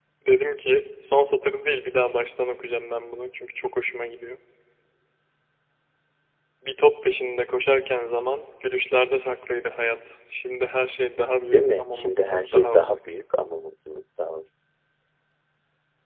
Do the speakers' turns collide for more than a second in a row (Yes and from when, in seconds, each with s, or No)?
Yes, from 11.4 s